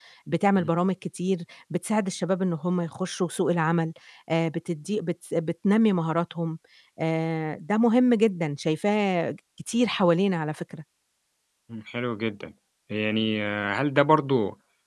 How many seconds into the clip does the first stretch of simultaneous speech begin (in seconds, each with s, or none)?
none